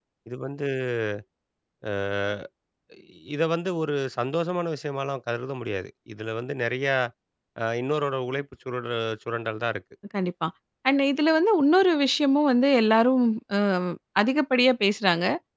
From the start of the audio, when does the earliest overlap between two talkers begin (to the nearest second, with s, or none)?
none